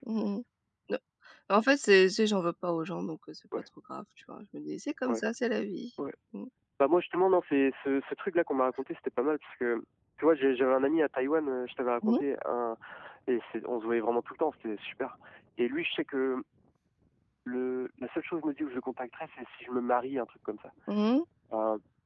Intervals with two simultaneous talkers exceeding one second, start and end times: none

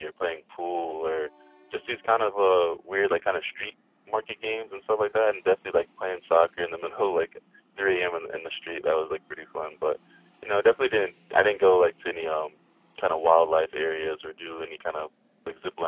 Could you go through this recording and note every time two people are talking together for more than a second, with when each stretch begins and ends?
none

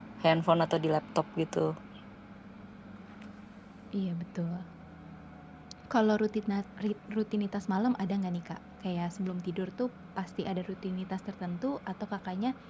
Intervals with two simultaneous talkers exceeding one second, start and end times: none

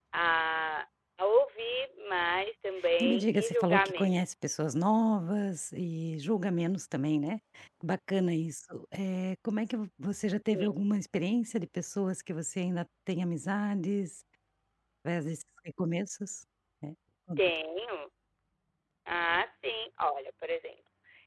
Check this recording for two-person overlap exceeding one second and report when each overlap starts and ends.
3.0-4.2

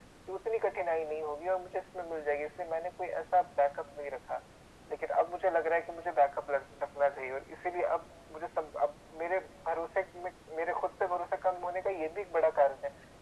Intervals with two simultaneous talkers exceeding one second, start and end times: none

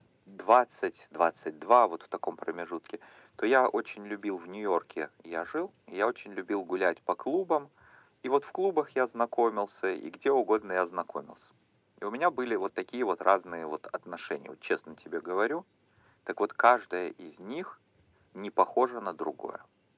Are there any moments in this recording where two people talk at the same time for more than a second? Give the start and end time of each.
none

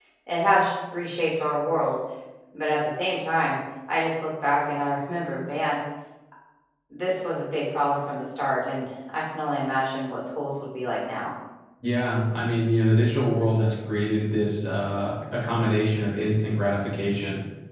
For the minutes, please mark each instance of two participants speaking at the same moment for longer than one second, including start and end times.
none

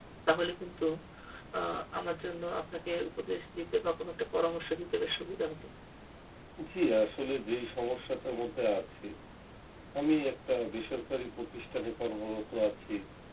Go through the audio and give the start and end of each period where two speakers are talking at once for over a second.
none

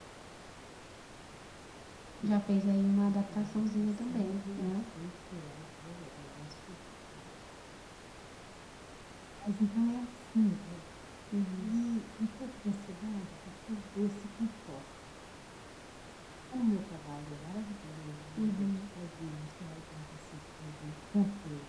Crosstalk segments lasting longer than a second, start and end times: 3.1-4.7

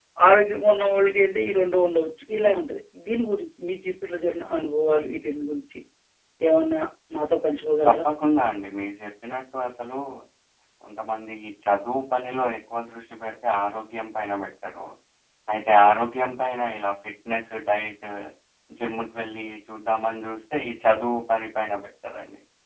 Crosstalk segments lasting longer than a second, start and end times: none

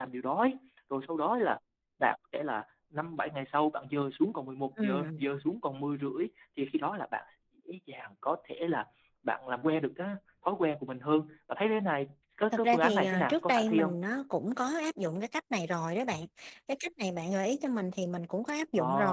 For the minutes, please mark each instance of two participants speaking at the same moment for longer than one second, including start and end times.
12.5-13.9

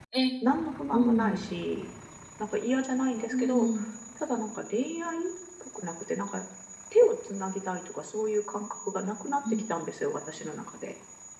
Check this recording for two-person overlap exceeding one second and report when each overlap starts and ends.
none

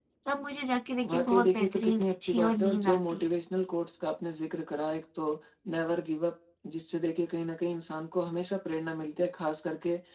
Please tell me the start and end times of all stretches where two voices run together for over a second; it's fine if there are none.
1.1-3.3

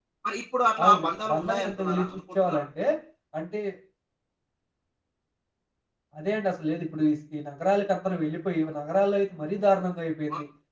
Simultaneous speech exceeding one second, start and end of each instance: 0.8-2.6

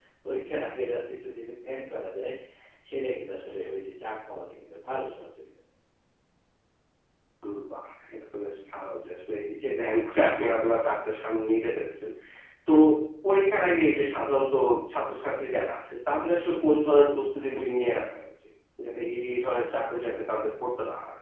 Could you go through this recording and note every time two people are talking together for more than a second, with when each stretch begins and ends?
none

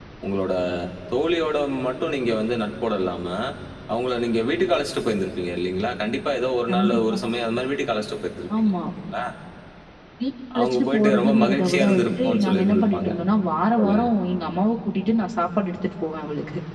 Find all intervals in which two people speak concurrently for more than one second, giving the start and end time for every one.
10.6-13.1

